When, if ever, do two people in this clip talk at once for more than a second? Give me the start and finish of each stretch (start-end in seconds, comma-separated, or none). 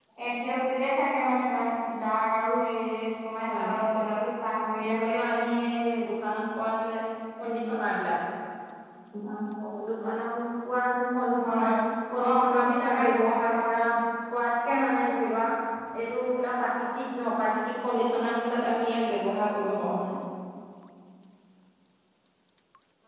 12.2-13.6